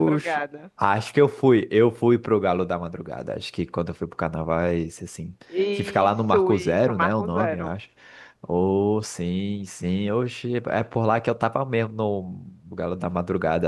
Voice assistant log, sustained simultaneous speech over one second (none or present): present